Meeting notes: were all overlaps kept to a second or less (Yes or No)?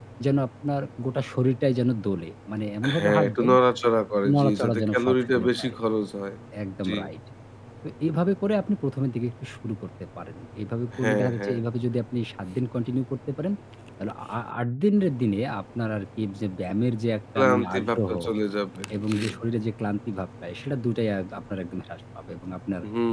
No